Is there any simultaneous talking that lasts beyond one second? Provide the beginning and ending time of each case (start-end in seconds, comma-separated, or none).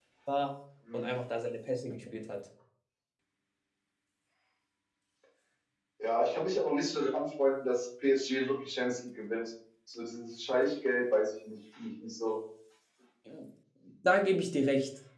none